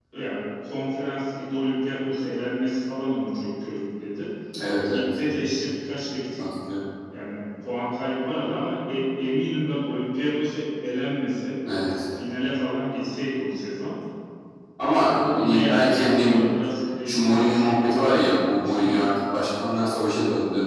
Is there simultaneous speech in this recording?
Yes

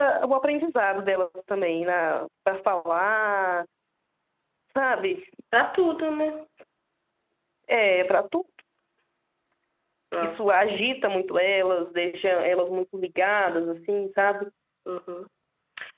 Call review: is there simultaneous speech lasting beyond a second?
No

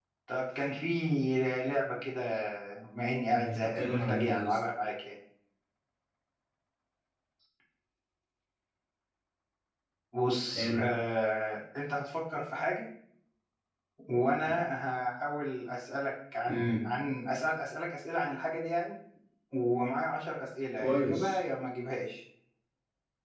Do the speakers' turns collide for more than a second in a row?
Yes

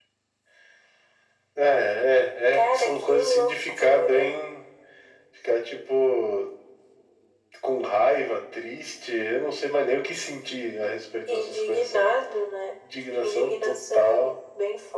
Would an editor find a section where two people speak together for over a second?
Yes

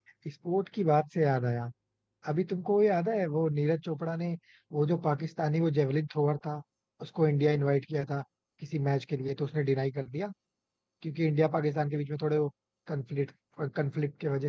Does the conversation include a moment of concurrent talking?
No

